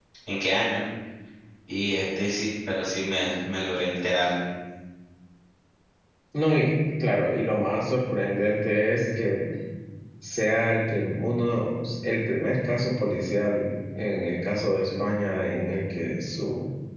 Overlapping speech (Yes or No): No